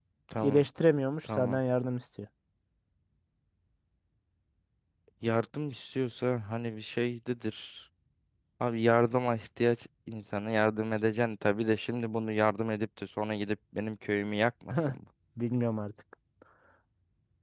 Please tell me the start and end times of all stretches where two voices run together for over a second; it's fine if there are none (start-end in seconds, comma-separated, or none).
none